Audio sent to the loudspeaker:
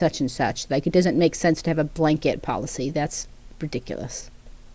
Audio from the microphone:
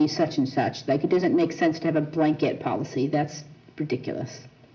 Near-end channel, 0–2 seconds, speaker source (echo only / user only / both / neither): echo only